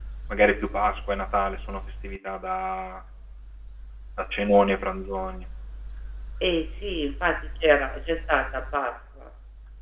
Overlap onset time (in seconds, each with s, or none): none